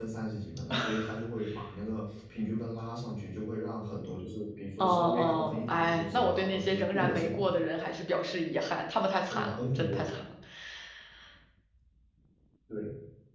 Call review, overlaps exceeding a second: present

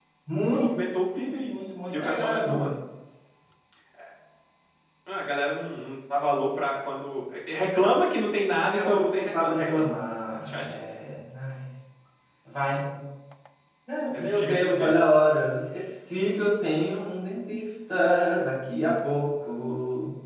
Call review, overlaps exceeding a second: present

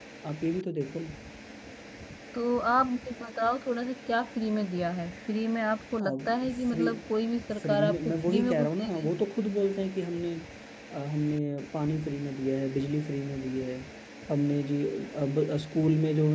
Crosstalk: present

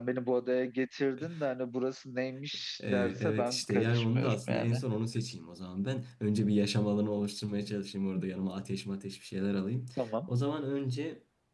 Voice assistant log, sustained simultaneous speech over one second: present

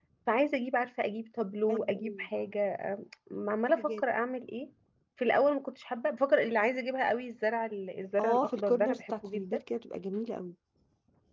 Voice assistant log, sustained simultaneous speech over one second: present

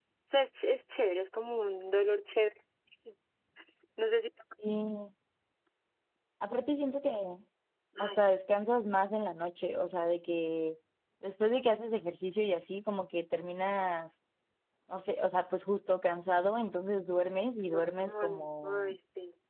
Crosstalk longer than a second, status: present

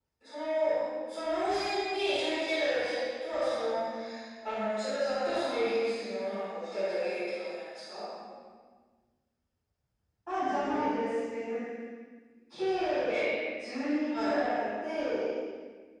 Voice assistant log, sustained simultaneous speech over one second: none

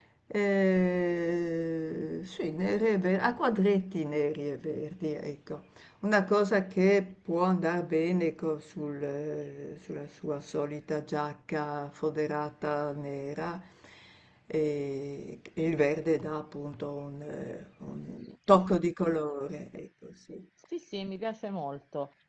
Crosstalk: none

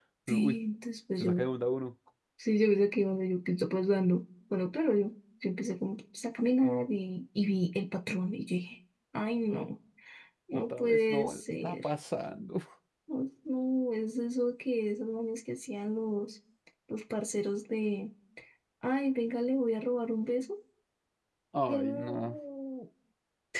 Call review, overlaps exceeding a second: present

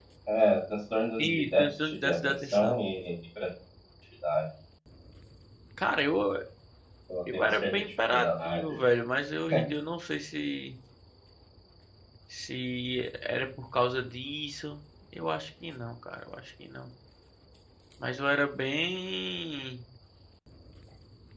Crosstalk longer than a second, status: present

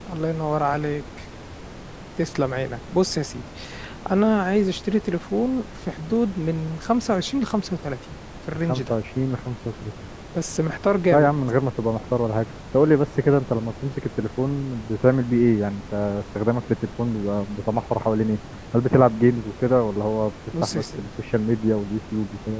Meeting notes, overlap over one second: none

